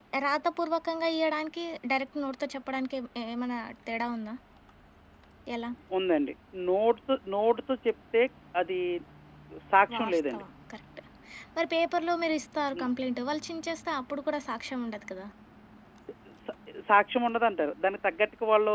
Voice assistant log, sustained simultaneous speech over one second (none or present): none